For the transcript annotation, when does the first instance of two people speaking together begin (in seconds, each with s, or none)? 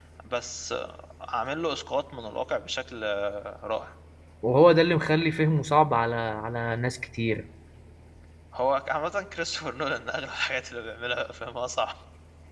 none